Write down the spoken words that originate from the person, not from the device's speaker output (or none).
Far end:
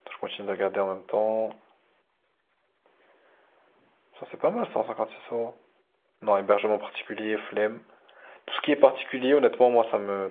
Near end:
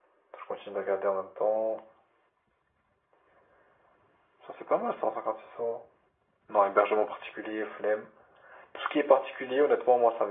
none